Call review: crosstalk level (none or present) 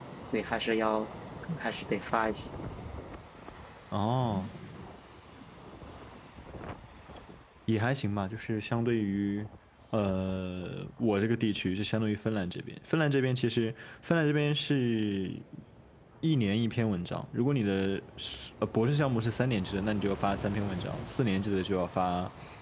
none